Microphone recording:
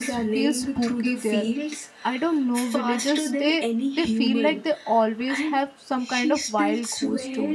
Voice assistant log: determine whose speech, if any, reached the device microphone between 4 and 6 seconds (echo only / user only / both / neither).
both